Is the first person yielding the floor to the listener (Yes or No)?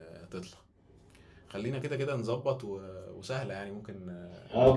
Yes